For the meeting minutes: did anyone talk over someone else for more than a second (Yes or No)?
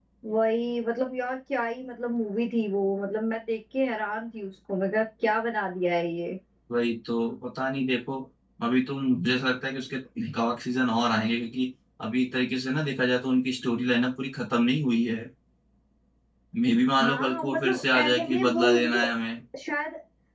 Yes